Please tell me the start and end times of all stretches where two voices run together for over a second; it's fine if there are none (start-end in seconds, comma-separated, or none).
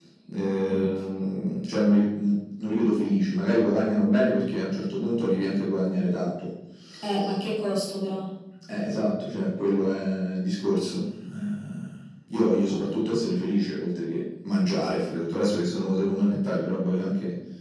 none